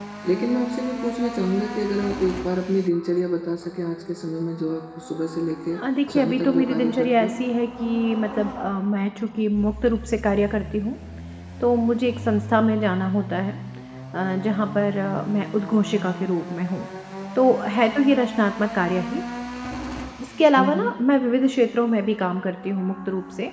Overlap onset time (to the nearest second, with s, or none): 6 s